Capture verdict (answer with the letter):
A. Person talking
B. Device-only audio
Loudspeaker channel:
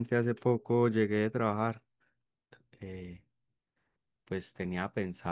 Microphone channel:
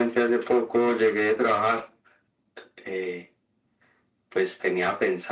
B